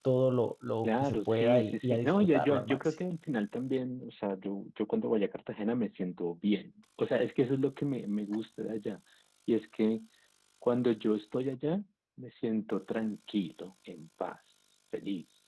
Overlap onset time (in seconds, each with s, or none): 0.8 s